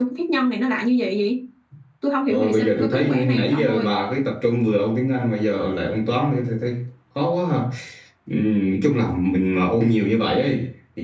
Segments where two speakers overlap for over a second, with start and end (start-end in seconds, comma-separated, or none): 2.3-4.0